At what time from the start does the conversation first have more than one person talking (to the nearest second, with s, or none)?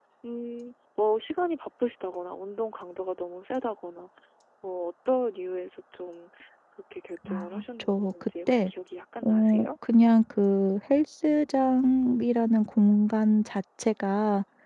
7 s